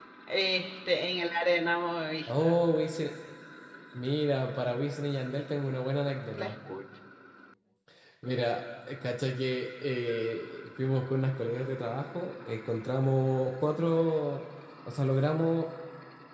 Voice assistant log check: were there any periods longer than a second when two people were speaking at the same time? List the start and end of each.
none

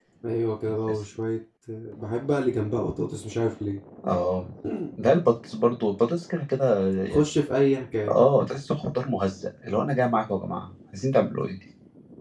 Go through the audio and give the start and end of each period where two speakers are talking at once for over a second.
none

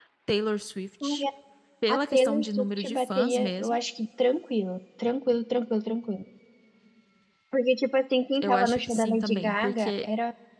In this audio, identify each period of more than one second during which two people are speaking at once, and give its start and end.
1.9-3.8, 8.4-10.1

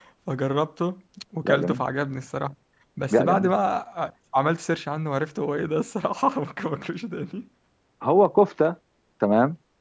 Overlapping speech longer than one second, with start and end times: none

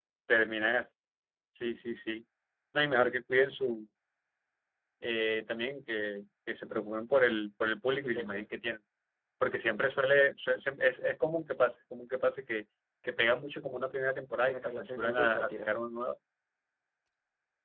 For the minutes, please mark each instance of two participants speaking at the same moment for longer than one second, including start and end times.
14.4-15.7

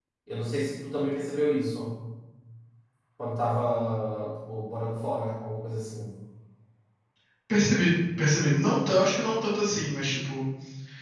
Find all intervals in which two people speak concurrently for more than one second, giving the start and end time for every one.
none

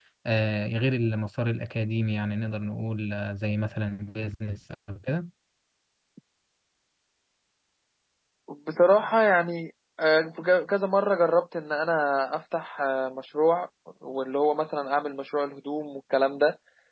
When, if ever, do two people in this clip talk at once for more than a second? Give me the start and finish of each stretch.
none

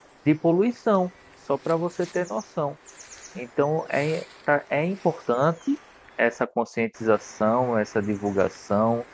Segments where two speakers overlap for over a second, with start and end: none

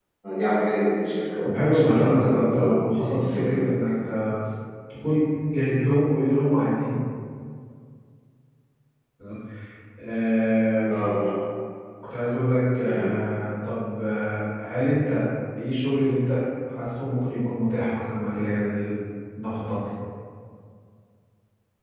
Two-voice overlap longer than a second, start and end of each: 1.4-3.7

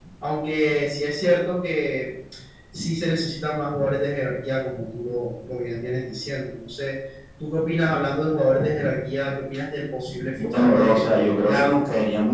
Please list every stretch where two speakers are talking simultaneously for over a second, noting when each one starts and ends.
10.5-11.8

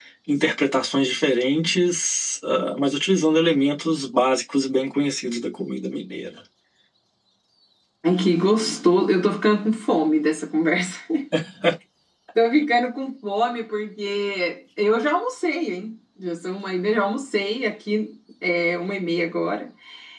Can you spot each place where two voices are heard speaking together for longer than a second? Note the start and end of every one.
none

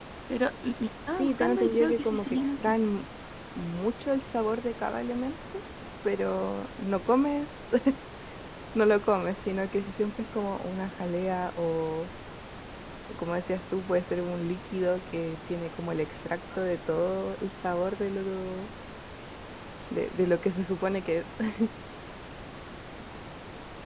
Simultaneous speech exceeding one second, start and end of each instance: 1.1-2.8

